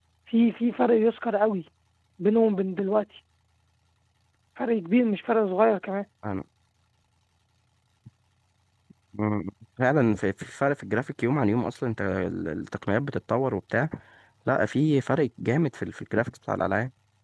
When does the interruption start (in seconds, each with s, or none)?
none